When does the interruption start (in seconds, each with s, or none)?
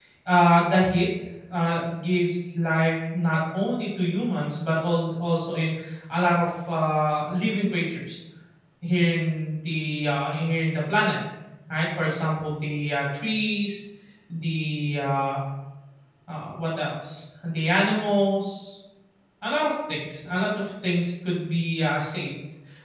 none